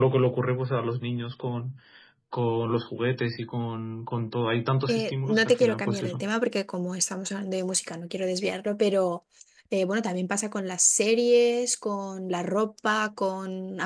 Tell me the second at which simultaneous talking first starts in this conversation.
4.9 s

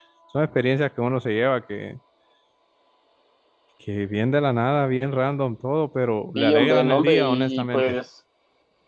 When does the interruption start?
6.4 s

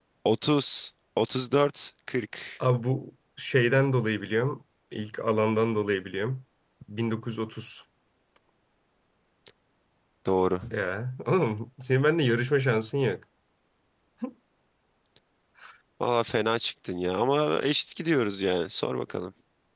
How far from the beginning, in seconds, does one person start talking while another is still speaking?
none

